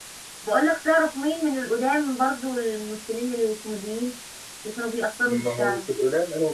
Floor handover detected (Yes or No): Yes